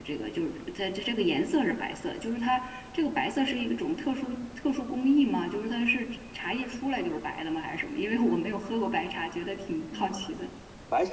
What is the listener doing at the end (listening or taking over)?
taking over